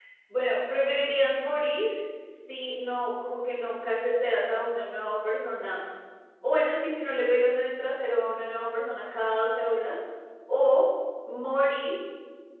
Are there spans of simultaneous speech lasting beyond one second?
No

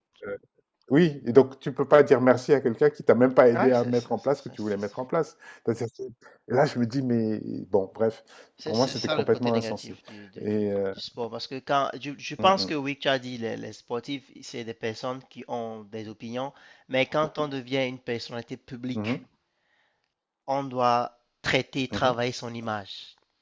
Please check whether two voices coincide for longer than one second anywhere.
Yes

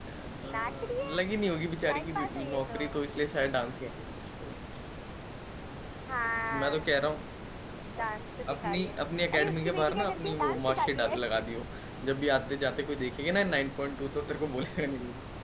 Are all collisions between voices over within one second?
No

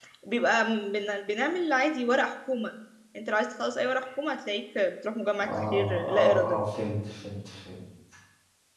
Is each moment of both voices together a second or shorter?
No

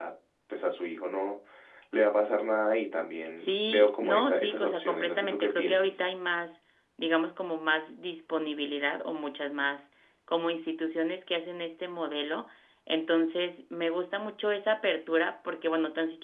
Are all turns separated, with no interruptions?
No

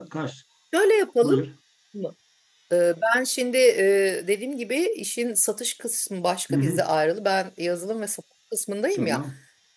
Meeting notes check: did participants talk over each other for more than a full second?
No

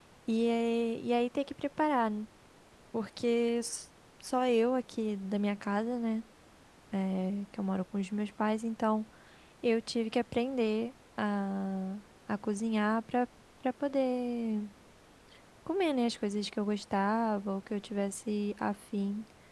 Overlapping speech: No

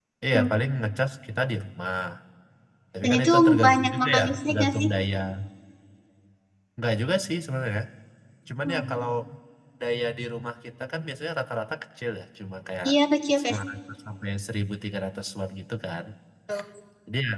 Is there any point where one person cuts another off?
Yes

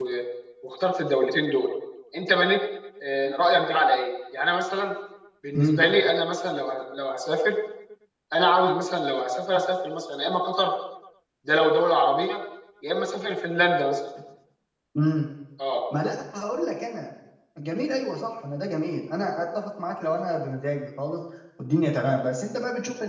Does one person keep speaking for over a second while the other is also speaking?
No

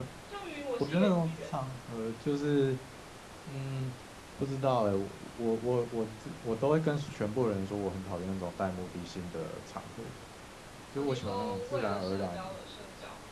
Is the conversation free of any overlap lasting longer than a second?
No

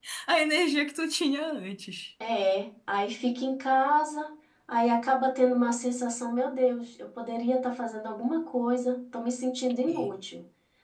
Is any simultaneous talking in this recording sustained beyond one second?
No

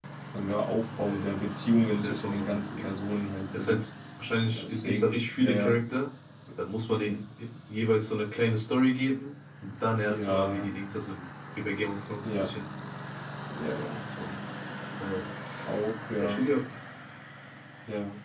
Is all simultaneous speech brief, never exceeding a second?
No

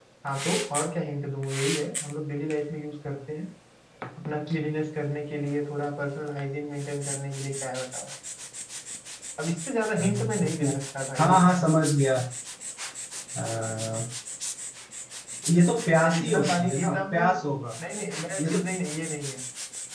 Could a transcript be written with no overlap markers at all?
No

